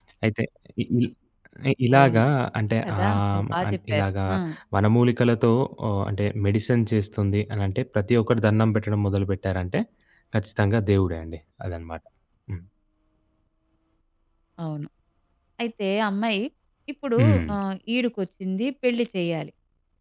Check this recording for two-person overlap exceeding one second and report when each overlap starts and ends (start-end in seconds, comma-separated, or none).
2.8-4.1